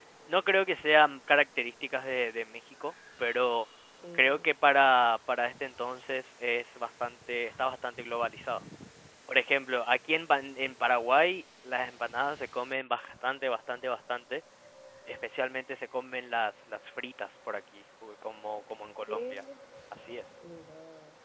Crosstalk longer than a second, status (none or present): none